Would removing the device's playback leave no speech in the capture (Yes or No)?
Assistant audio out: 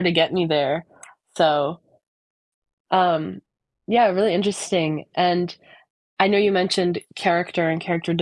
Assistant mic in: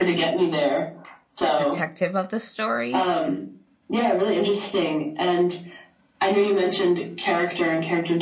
No